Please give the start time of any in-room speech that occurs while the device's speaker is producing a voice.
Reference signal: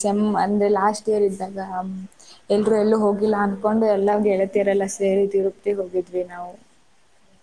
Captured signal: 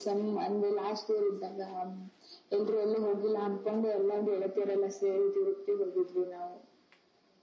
none

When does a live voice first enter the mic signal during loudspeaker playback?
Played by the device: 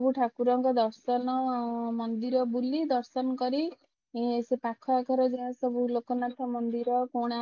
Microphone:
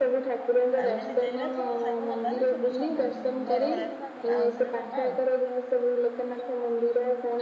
1 s

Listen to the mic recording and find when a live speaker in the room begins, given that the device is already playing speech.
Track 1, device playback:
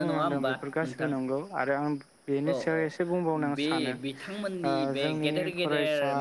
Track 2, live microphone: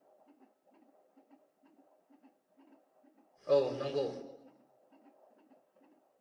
4 s

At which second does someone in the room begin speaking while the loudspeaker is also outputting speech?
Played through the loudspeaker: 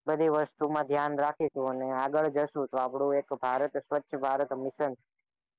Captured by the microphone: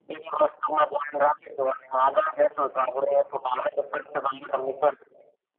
none

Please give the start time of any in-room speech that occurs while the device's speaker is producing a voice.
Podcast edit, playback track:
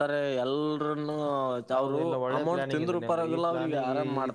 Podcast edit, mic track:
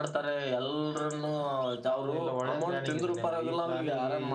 none

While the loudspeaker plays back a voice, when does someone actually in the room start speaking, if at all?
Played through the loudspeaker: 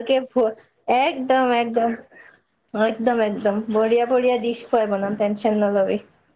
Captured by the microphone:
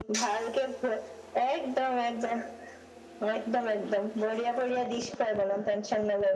none

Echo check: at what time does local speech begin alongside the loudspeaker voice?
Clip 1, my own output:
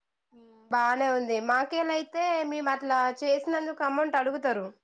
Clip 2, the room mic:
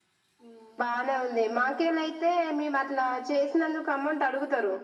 none

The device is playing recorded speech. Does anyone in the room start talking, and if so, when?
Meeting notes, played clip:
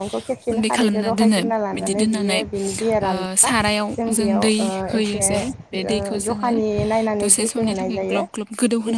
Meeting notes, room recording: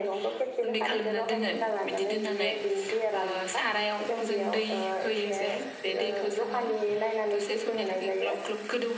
none

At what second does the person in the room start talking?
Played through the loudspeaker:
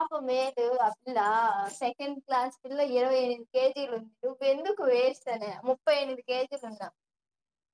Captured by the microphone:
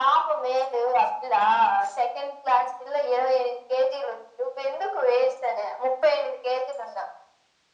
none

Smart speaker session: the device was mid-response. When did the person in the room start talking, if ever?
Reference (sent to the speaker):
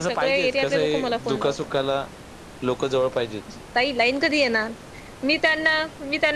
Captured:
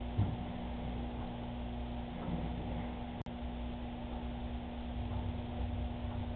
none

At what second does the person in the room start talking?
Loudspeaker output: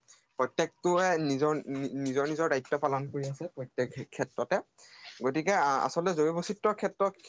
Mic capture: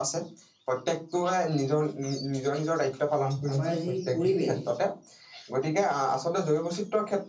4 s

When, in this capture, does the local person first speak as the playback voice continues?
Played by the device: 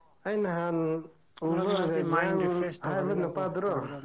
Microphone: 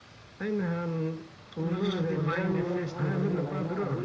2 s

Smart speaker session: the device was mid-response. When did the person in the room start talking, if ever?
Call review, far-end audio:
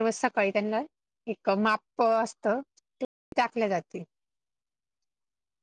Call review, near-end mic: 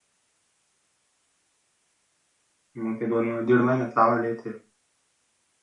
3 s

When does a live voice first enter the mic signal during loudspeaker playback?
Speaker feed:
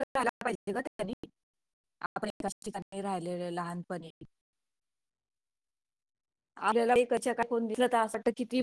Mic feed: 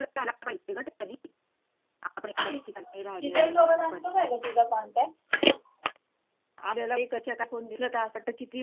2 s

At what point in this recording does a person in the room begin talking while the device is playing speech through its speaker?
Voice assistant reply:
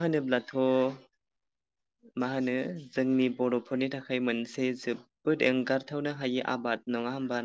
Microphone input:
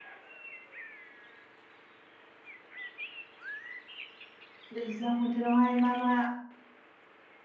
5 s

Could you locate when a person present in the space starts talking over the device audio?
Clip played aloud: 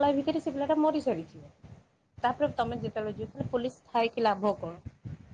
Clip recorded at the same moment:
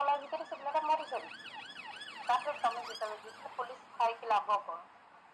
none

